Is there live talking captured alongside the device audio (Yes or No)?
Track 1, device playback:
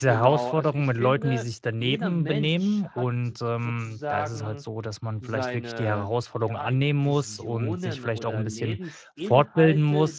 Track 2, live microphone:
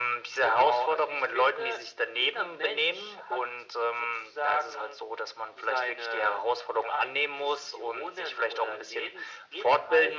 No